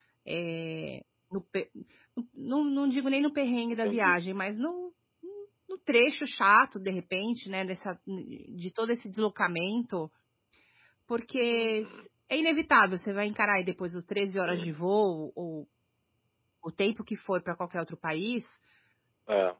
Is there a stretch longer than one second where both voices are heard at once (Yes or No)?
No